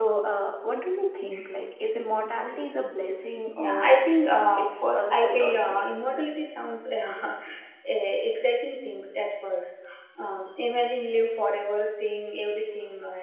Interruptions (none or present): present